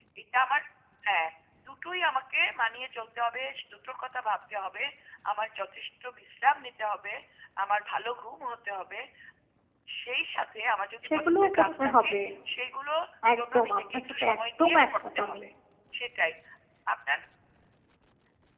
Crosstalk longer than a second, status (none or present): present